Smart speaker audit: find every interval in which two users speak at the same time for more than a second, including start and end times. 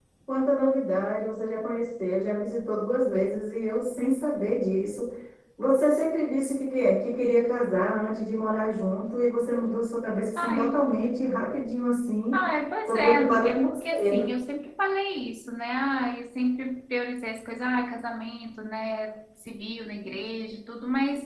12.9-14.2

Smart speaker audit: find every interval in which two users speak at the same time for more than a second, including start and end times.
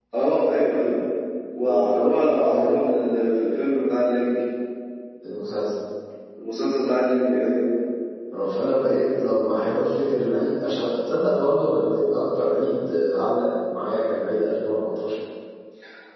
1.6-2.9

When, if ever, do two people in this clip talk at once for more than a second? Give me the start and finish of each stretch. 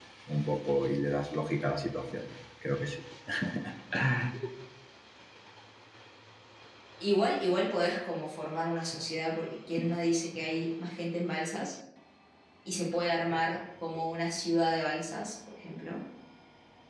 none

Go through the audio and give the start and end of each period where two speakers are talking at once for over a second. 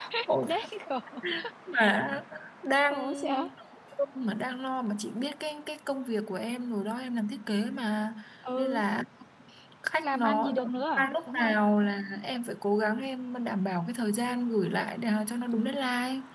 10.0-11.6

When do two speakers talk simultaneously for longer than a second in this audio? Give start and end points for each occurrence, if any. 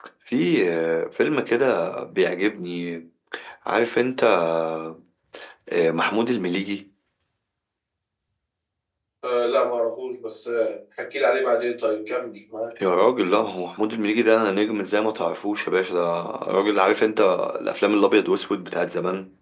none

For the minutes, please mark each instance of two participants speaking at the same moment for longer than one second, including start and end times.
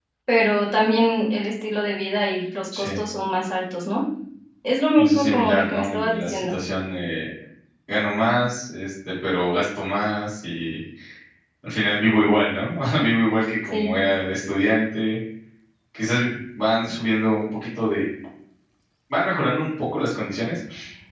5.0-6.5

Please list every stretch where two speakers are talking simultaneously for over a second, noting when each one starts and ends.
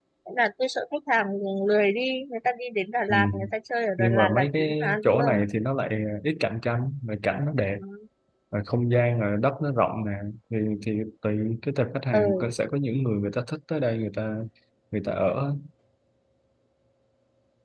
4.0-5.4

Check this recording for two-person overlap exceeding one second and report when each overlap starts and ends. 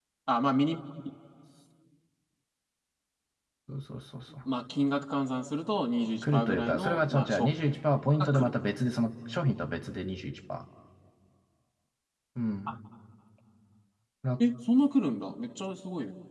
6.2-7.5

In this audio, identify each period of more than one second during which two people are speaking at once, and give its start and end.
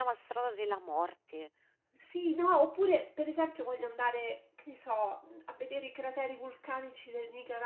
none

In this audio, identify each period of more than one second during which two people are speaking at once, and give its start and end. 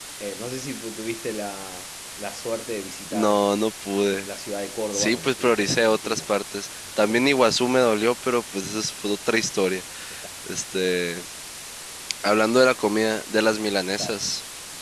4.9-6.2

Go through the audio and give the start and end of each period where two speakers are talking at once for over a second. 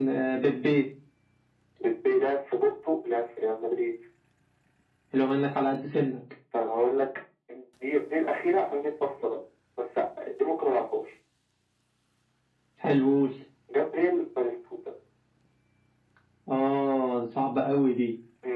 none

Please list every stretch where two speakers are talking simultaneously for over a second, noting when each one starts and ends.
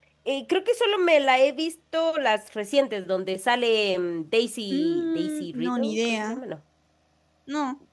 4.7-6.4

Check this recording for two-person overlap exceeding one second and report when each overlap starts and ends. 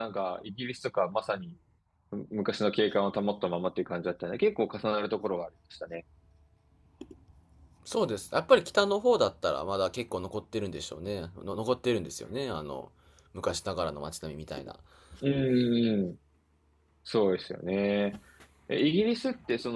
none

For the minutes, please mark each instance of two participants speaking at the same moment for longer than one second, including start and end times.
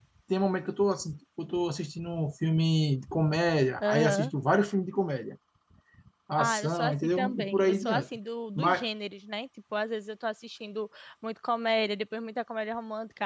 6.4-8.1

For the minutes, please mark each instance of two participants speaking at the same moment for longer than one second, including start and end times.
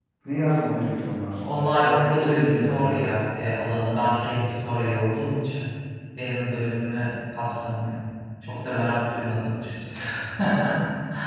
1.8-3.1

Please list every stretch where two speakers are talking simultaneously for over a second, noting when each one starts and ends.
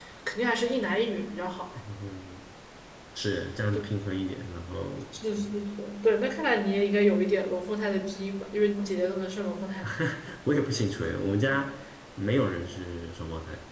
none

